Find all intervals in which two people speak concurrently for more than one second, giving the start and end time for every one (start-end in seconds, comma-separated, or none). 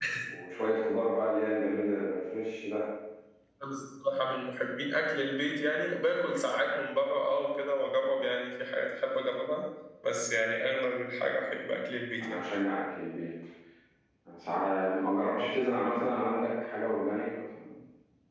none